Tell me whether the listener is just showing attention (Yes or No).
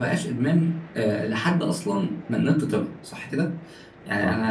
Yes